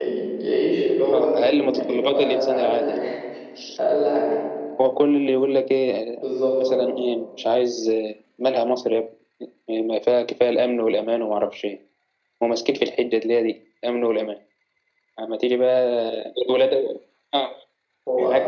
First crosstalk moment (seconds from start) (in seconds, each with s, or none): 1.1 s